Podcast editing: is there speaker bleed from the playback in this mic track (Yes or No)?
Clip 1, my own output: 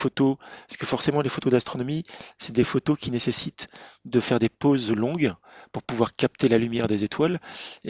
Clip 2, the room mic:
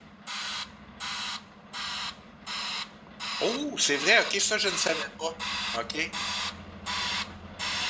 No